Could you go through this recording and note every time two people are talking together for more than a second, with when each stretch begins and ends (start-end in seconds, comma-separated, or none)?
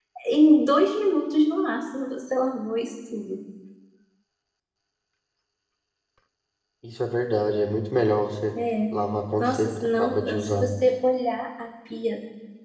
9.4-10.7